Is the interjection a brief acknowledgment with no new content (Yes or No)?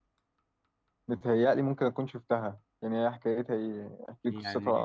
No